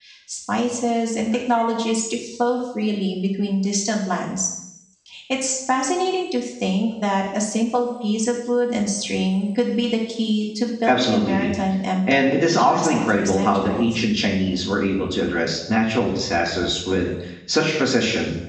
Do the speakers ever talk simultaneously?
Yes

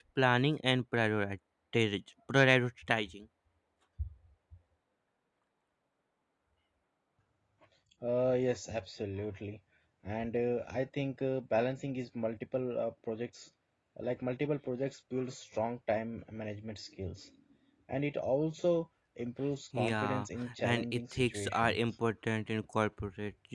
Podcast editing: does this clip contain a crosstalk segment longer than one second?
Yes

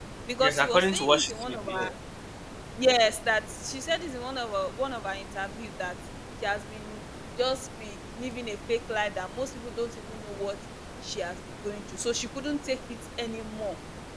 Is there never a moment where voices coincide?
No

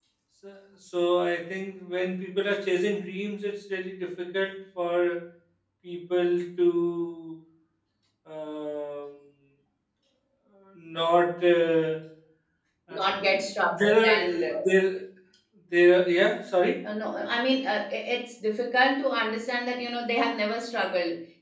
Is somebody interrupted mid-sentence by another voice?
Yes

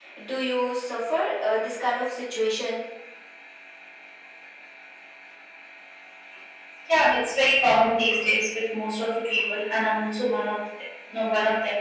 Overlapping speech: No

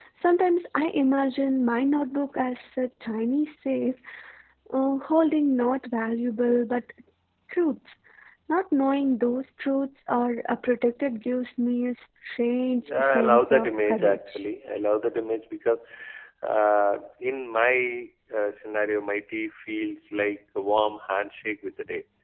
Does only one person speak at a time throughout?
No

